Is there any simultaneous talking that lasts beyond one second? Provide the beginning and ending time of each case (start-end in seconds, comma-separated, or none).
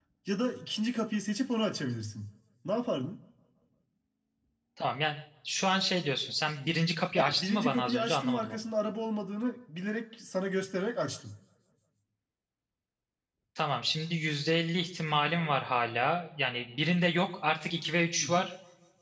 7.2-8.6